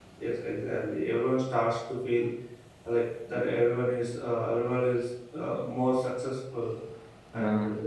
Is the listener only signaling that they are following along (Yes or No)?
Yes